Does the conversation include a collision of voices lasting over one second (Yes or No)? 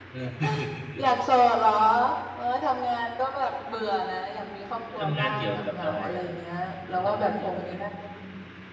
Yes